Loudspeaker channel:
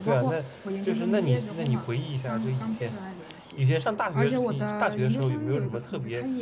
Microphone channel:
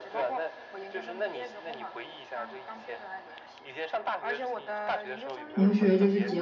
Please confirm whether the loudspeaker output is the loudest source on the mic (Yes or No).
No